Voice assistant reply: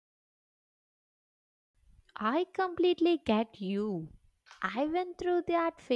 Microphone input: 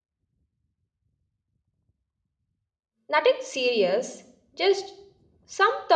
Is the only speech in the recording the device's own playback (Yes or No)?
No